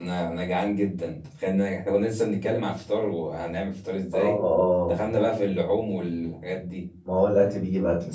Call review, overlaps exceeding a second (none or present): none